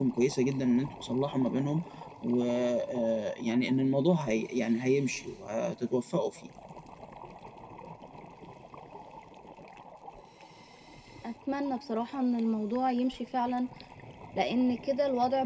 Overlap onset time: none

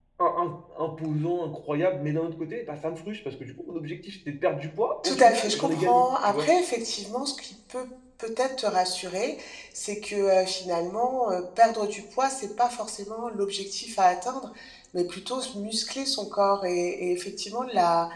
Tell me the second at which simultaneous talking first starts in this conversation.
5.0 s

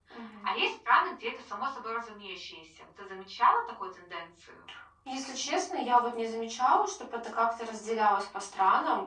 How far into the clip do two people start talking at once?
none

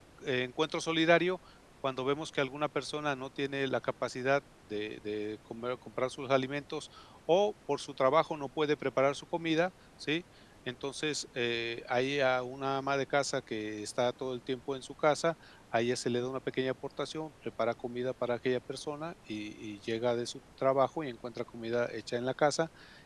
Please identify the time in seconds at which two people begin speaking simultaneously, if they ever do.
none

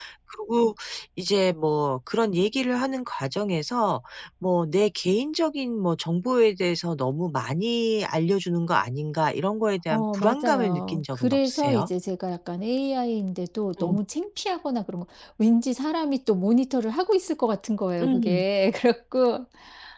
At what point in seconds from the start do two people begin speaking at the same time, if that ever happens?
9.9 s

